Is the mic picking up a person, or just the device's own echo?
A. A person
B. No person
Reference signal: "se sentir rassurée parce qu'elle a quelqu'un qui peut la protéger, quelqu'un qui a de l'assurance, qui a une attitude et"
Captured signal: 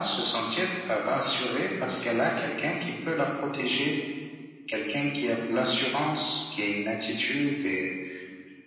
B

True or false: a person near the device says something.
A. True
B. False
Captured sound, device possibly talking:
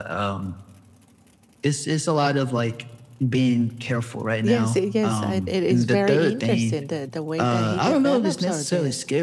A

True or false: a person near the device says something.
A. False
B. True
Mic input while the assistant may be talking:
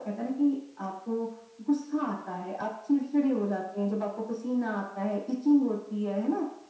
A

